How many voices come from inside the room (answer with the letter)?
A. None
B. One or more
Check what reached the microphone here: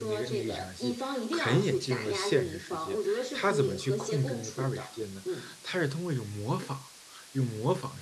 B